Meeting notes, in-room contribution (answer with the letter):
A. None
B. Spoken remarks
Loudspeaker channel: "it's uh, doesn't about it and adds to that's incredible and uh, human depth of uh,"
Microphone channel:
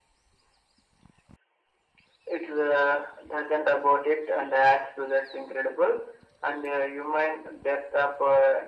A